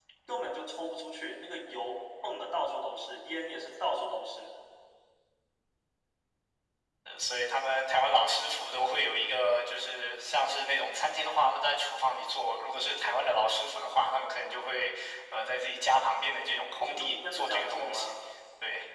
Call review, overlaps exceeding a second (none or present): present